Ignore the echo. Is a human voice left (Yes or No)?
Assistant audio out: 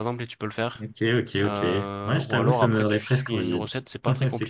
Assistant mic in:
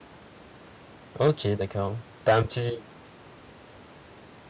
Yes